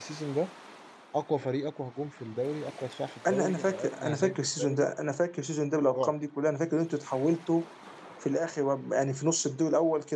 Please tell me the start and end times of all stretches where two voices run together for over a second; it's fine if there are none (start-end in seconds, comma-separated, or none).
3.3-4.9